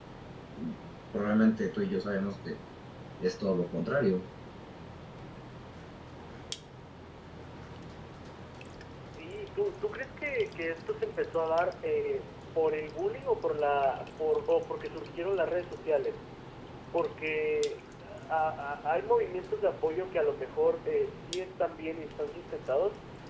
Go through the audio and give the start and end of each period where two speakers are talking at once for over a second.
none

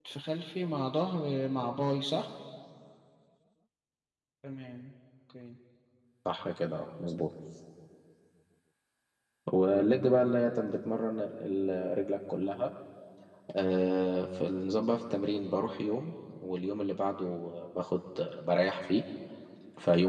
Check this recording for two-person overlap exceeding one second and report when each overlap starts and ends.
none

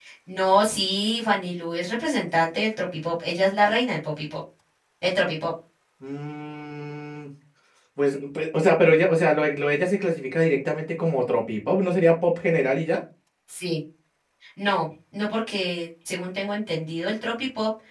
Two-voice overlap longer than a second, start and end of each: none

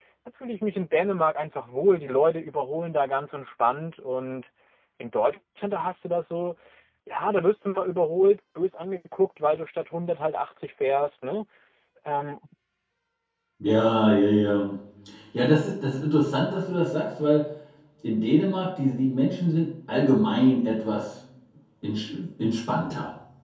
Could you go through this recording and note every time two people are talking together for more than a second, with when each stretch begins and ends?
none

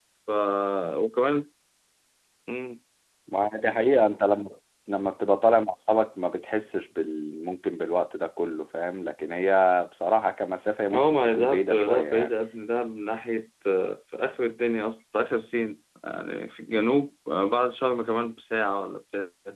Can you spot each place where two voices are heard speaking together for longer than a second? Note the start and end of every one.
10.9-12.3

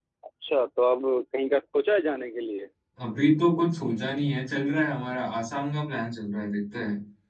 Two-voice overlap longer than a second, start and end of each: none

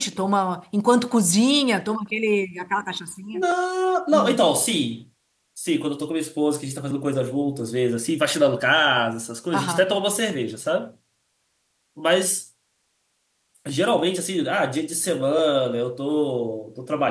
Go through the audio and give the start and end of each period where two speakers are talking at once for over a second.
none

